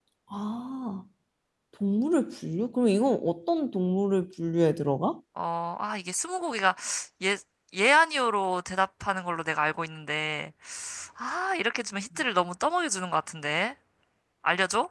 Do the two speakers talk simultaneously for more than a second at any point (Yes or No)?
No